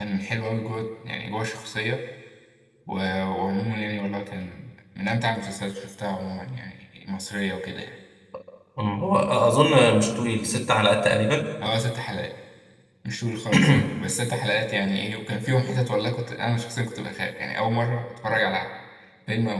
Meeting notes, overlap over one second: none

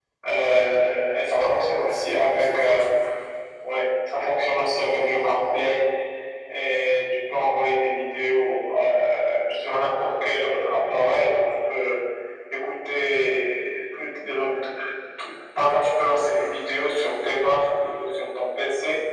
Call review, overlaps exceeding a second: present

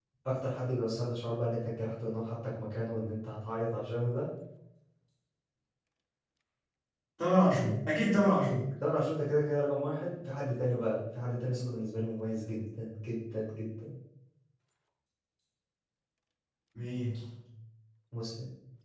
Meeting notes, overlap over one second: none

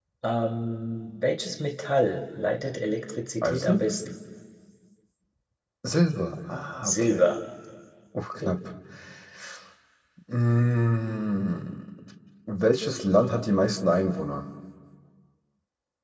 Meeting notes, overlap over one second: none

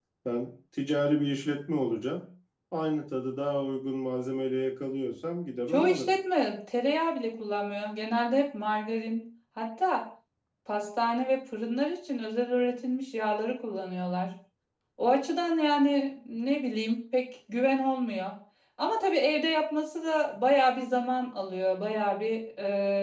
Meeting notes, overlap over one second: none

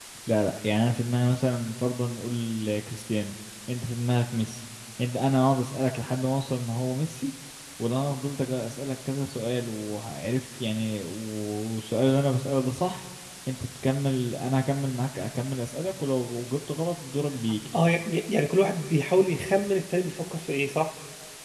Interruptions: none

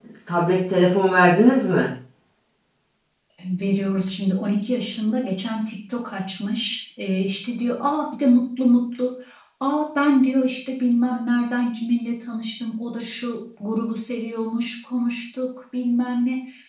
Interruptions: none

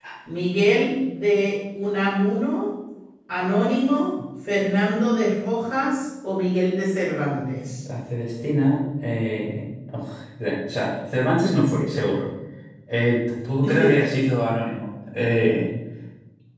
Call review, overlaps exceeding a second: none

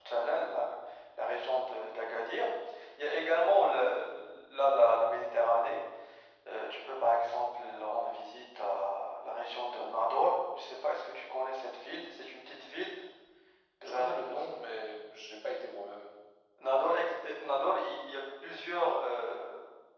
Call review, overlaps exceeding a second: none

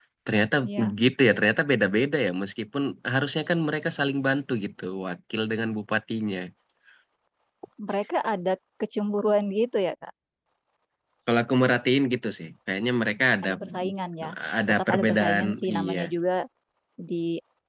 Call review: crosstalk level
present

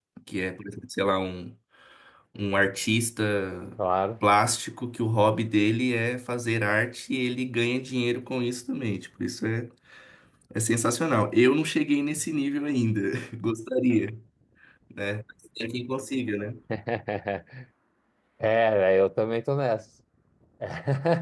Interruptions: none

